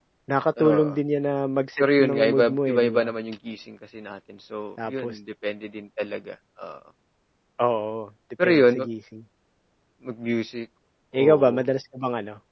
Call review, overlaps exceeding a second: present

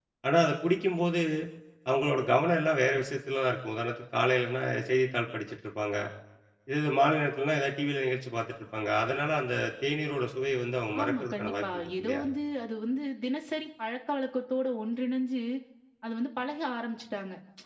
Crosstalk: present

